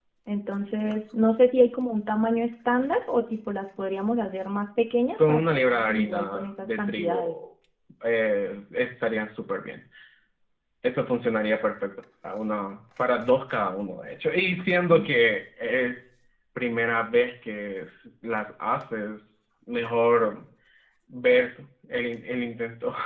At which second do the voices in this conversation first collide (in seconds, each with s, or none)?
5.2 s